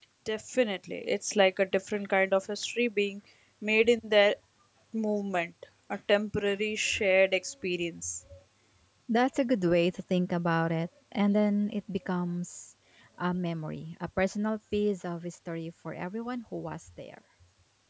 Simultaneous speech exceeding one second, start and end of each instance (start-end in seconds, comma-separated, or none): none